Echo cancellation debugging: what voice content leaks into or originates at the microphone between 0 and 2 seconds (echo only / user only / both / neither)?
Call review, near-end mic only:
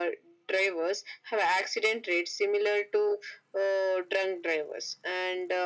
echo only